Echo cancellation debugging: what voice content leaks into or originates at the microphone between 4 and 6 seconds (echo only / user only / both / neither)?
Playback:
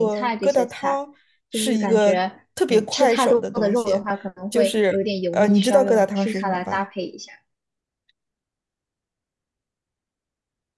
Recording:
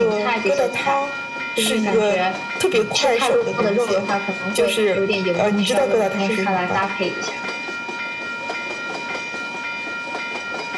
echo only